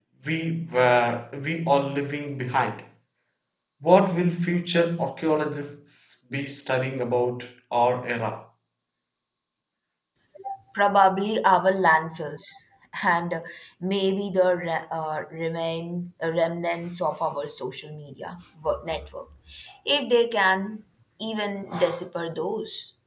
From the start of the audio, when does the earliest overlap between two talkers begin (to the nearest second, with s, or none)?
none